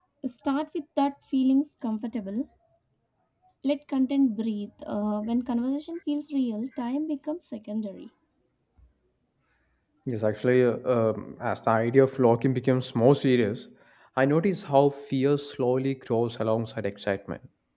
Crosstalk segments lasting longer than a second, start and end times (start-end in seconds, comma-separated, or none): none